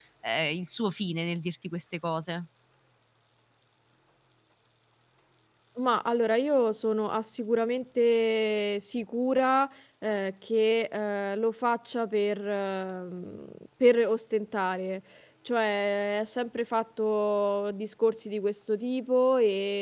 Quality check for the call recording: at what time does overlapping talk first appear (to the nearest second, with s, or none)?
none